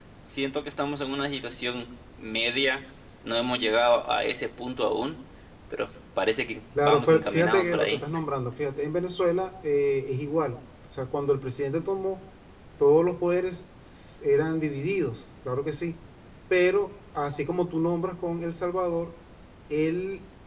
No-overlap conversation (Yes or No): No